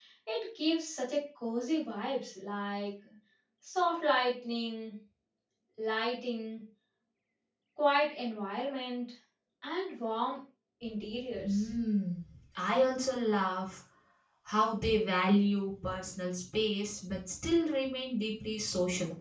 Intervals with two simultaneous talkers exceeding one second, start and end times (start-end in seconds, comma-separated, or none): none